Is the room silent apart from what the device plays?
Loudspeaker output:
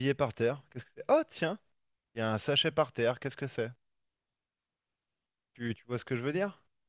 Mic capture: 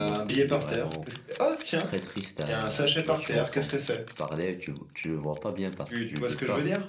No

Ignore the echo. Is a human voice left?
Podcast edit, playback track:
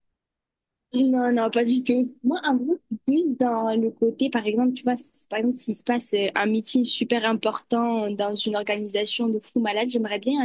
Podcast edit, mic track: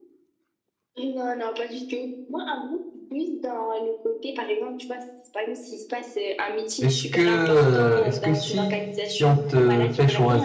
Yes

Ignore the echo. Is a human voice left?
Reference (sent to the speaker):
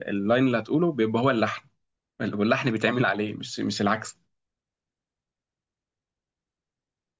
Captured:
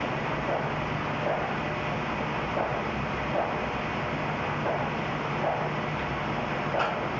No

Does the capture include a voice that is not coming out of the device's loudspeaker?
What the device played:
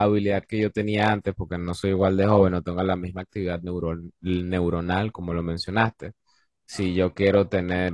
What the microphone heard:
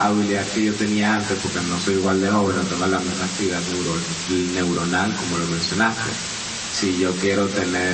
No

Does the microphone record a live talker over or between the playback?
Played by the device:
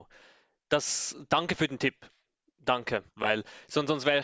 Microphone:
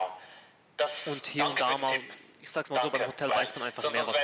Yes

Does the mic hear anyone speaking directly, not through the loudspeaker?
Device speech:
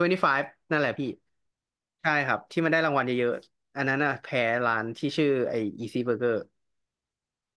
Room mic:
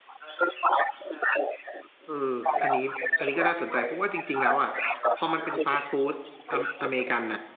Yes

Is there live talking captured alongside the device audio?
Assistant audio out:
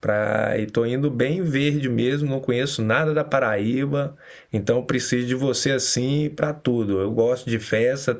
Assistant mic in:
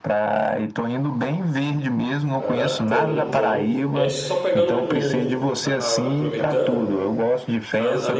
Yes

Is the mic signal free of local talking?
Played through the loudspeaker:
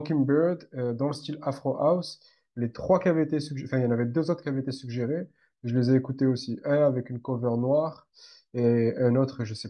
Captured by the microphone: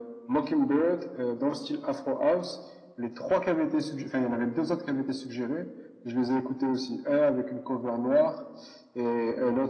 Yes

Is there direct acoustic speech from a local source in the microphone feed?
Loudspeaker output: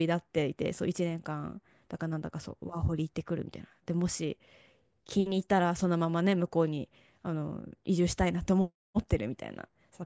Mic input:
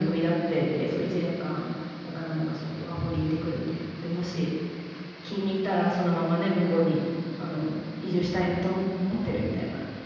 No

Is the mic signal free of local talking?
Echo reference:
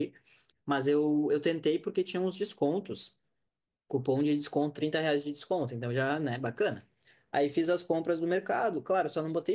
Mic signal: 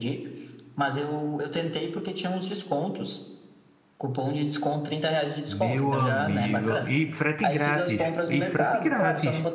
No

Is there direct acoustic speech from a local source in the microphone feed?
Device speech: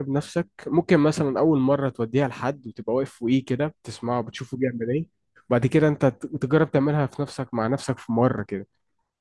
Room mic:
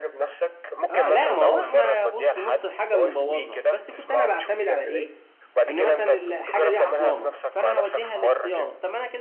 Yes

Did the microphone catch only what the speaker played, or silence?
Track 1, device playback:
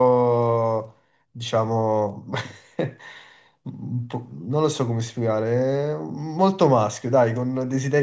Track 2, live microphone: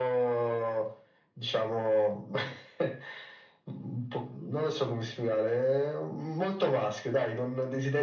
Yes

